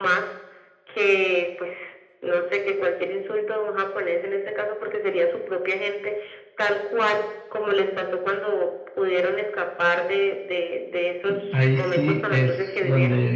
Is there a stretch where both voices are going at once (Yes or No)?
Yes